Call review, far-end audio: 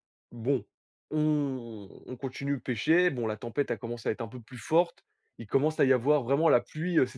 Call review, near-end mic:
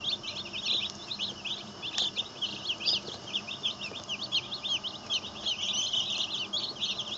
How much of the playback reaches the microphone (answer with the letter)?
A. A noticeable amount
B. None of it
B